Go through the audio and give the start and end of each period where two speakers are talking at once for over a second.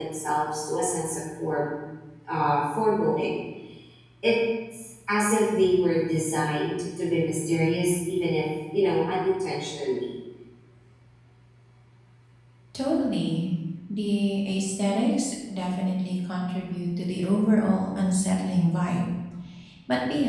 none

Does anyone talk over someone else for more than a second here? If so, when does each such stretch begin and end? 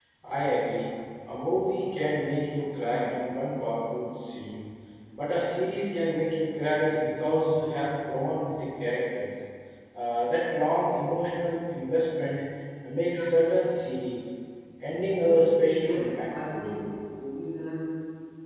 15.2-16.7

